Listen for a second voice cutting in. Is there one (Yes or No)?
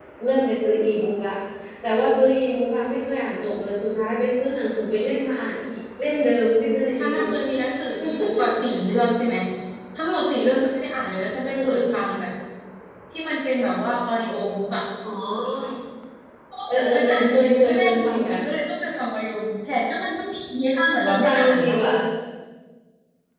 Yes